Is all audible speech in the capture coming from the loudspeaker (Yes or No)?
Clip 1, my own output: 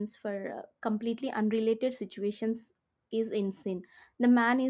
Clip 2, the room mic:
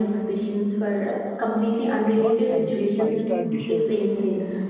No